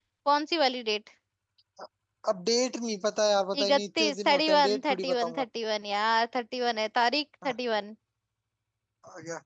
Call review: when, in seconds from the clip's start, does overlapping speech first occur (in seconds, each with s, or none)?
3.5 s